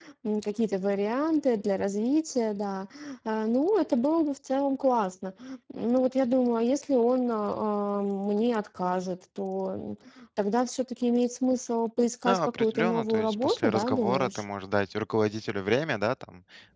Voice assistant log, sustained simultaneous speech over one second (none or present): present